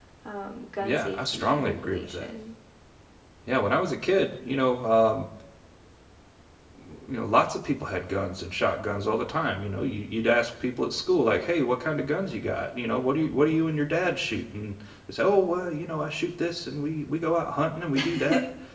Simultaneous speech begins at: 0.8 s

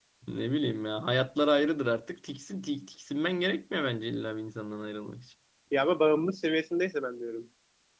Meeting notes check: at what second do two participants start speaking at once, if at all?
none

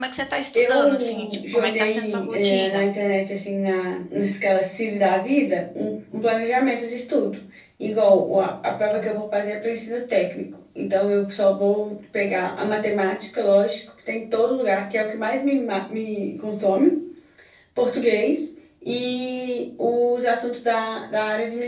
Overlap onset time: 0.5 s

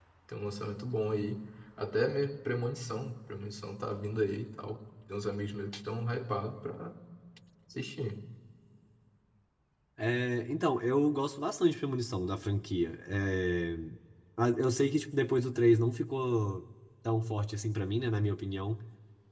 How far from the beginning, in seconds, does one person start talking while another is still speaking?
none

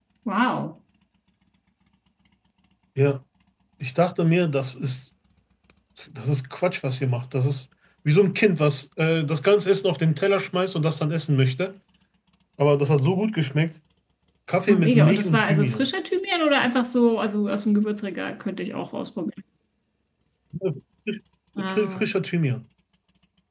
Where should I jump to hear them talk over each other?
14.7 s

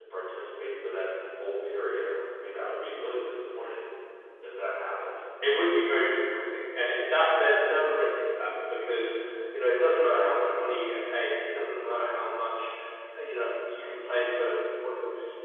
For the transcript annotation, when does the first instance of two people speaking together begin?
none

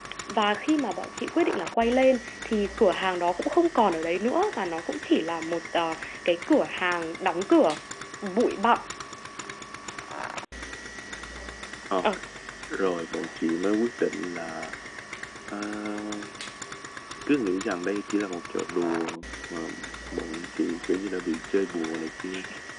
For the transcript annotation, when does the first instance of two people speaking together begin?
none

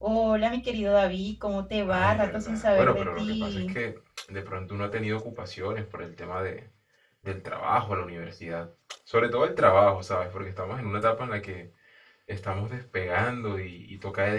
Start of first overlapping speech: 1.9 s

